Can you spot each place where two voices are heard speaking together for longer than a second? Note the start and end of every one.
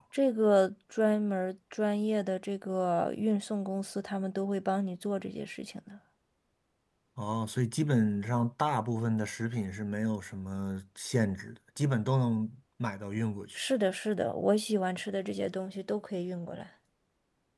none

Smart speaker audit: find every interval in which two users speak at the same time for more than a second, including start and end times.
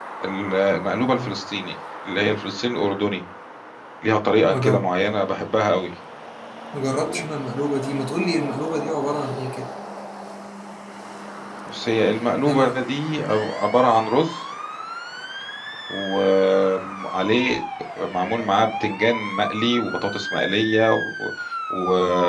none

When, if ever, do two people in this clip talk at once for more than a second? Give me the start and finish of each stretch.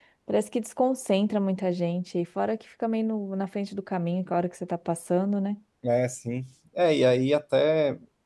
none

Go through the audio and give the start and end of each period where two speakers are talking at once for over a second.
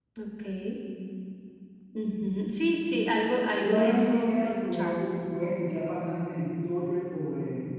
3.6-5.1

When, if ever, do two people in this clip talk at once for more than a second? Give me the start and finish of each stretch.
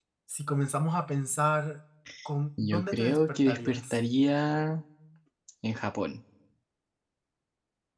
2.6-3.8

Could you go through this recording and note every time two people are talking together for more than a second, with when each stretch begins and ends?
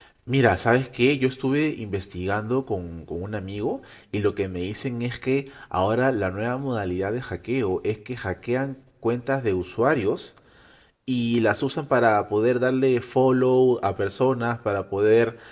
none

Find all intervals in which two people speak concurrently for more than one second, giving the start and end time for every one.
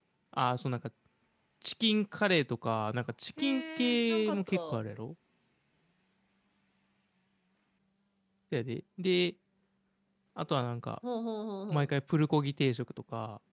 3.4-4.8

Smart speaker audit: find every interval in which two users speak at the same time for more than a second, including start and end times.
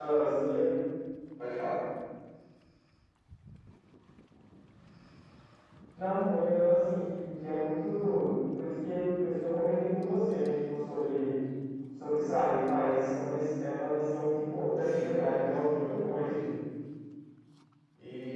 14.8-16.4

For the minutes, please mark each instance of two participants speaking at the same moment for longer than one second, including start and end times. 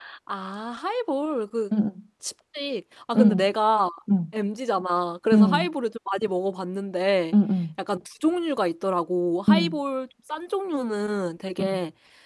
none

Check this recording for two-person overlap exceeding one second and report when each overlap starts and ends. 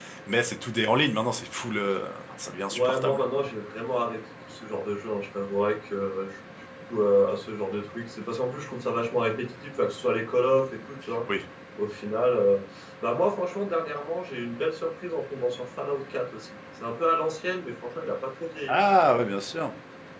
none

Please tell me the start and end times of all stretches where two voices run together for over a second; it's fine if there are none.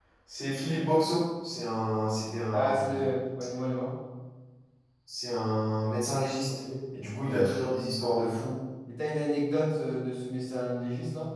none

